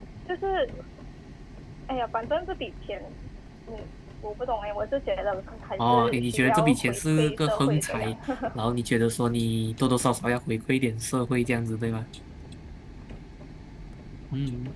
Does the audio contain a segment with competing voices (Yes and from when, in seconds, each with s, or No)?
Yes, from 5.8 s